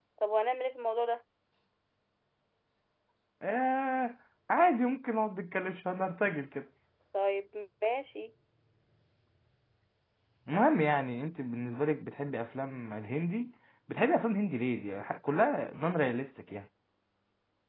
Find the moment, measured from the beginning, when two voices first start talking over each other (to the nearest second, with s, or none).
none